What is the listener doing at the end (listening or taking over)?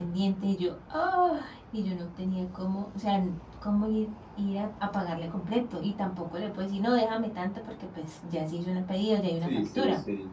taking over